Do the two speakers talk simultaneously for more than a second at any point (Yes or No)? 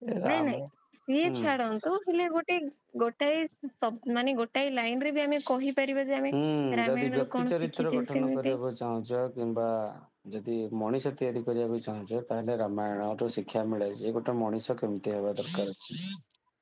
Yes